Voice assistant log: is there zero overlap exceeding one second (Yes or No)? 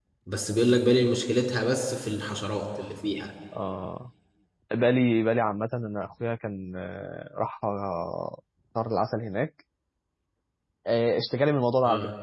Yes